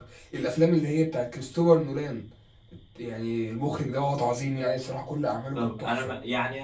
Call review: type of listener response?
taking over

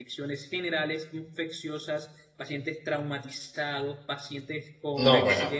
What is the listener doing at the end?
listening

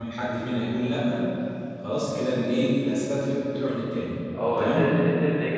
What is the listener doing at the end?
taking over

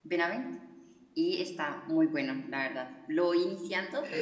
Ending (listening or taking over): listening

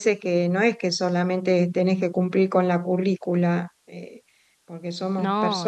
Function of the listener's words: listening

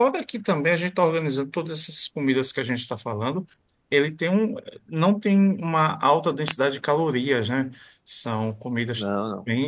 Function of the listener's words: listening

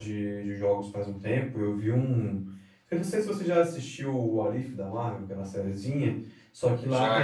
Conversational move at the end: listening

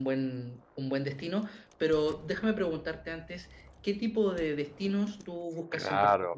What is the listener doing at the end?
taking over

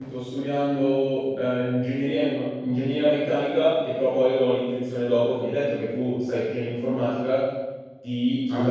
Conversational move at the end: listening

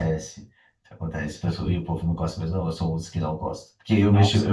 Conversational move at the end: listening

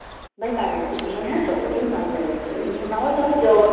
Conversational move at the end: taking over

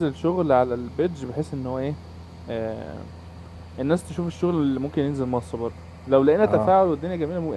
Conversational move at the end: listening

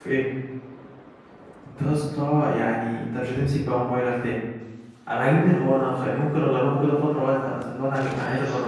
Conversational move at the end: taking over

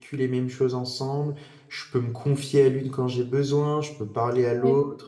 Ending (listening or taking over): listening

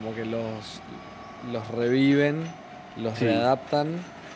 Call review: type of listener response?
listening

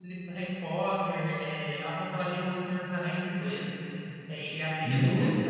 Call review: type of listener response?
listening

